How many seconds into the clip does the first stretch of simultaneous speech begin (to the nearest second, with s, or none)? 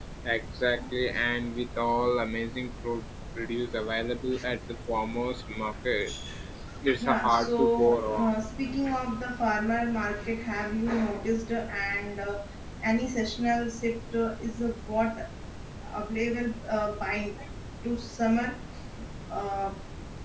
7 s